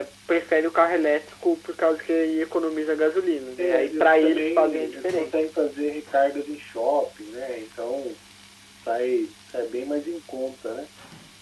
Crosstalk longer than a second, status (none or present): present